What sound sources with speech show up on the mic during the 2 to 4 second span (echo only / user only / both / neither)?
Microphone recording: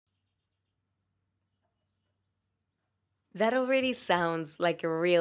user only